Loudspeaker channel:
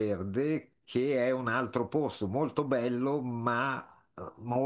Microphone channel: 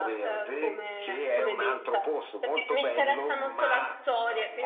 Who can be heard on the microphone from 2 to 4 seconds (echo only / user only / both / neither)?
both